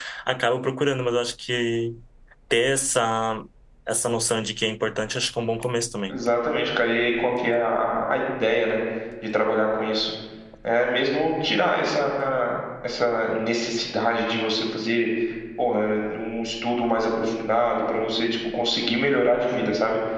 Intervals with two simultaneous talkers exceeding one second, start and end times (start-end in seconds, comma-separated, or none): none